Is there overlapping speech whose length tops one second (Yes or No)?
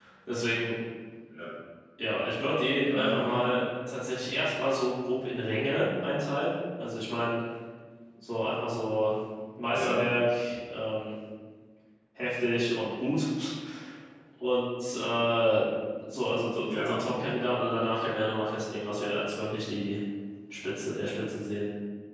No